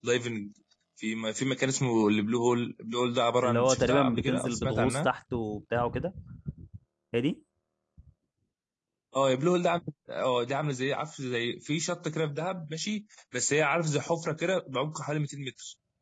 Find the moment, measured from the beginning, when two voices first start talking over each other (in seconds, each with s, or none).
3.4 s